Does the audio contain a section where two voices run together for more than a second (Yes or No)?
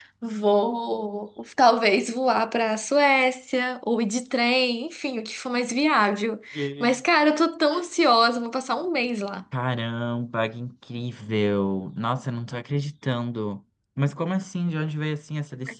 No